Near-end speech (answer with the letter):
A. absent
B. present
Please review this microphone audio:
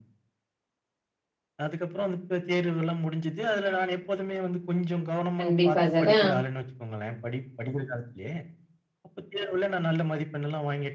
B